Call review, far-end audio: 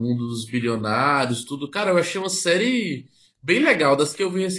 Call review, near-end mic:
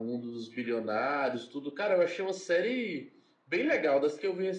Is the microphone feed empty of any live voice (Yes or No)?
Yes